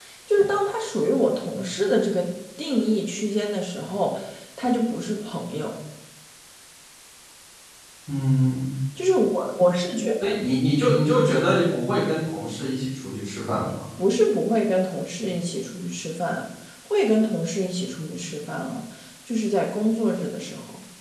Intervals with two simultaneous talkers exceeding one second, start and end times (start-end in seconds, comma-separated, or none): none